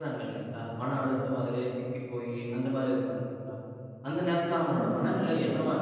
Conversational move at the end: listening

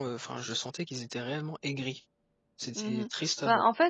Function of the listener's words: taking over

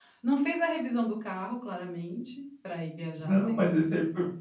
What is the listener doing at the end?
taking over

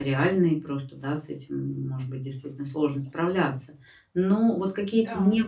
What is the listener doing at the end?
listening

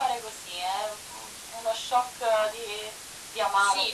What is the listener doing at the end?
taking over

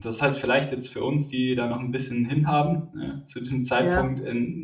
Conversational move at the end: listening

